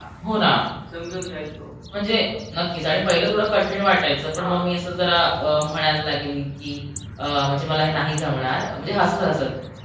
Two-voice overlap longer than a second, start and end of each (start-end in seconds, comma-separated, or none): none